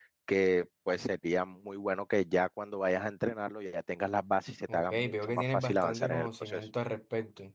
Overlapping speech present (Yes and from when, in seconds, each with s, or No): Yes, from 4.7 s